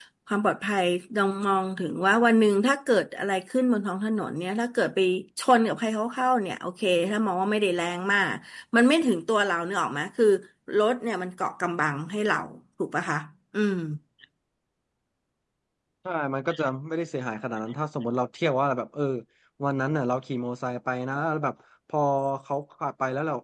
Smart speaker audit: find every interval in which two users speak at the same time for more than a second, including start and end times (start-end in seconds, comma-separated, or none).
none